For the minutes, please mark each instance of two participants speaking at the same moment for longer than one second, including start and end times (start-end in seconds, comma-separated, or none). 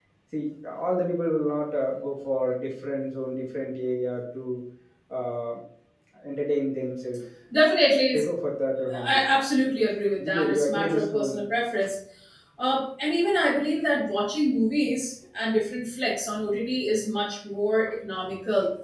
10.2-11.4